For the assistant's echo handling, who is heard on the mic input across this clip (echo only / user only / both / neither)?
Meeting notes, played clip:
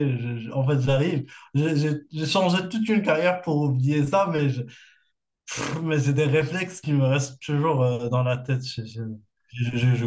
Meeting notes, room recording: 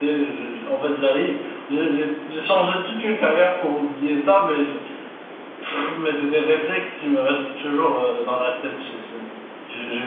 echo only